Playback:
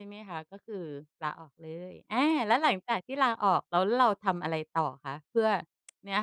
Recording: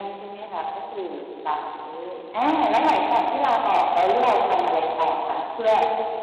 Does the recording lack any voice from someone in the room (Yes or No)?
Yes